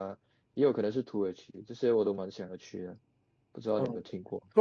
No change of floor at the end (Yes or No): No